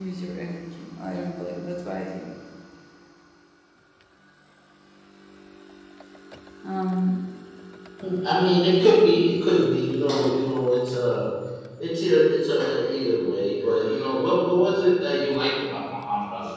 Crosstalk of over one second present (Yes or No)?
No